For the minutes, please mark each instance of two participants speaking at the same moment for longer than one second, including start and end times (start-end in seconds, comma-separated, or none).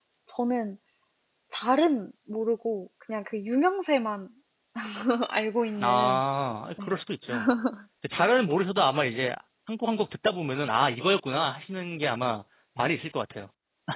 none